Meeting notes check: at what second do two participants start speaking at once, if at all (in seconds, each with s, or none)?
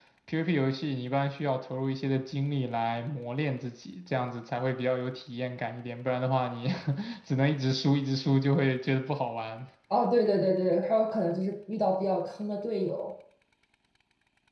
none